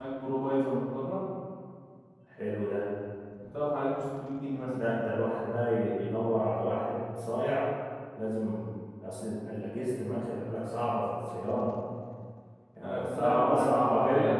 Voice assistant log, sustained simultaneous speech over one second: present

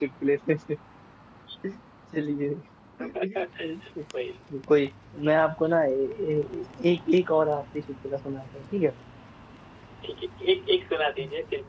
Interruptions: none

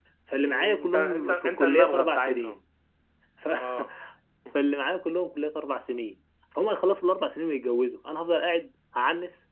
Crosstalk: present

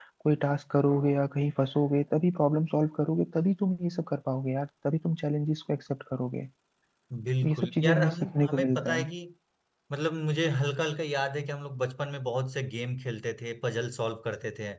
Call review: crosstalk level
present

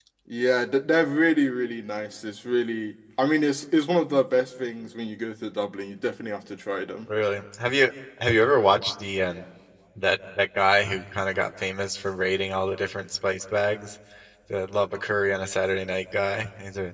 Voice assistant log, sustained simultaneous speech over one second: none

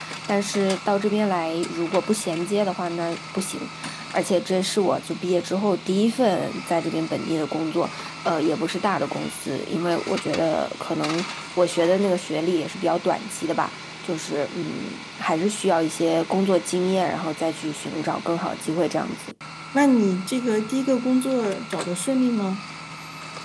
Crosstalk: none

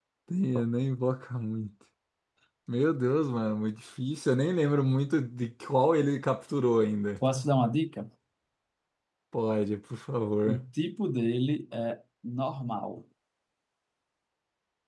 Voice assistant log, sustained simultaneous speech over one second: none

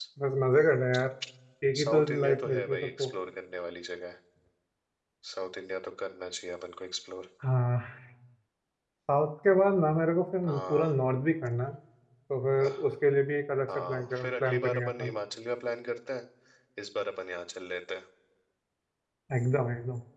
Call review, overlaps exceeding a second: present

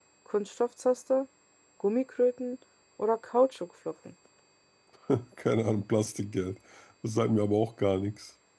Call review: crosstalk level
none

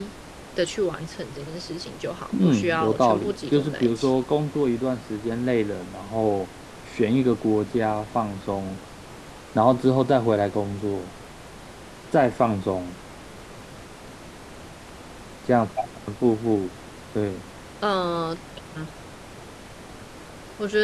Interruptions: present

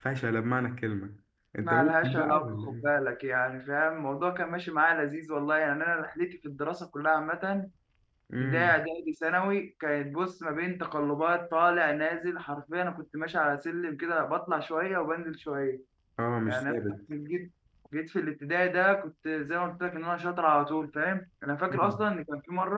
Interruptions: present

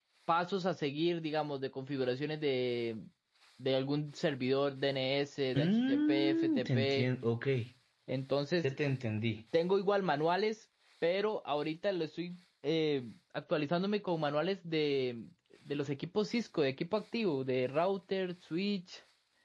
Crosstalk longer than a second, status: present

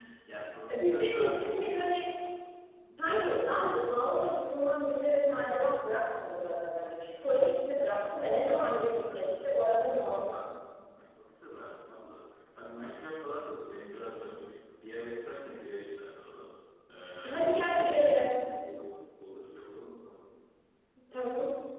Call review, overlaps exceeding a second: present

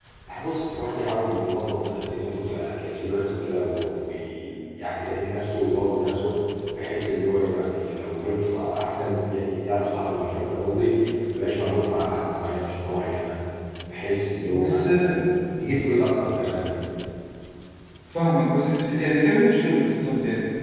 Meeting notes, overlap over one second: none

